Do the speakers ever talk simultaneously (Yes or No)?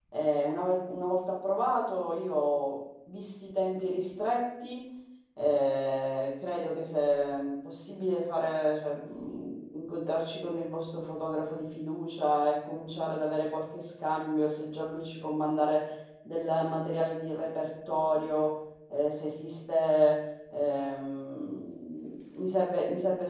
No